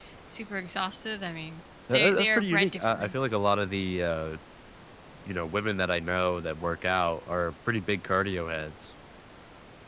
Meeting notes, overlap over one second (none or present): present